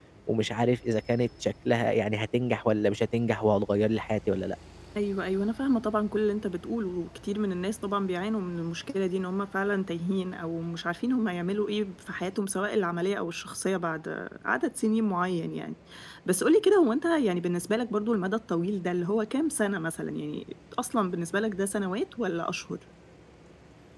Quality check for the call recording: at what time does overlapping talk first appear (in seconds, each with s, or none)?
none